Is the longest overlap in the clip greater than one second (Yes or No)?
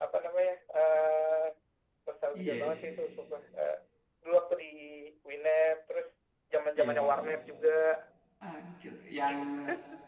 No